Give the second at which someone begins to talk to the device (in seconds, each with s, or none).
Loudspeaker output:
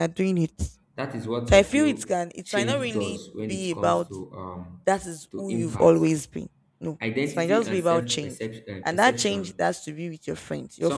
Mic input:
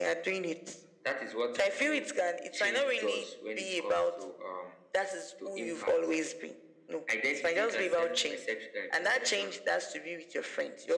none